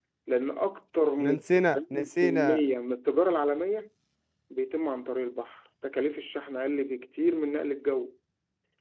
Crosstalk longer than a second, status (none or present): present